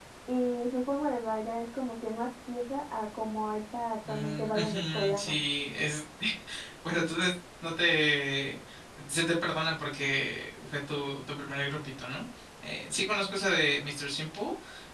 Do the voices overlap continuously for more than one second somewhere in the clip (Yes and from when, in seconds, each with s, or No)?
Yes, from 4.0 s